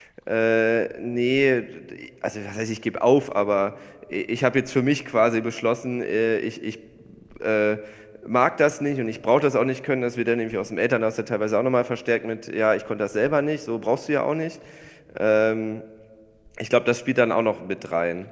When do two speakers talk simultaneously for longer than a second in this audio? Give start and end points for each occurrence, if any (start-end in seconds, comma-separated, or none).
none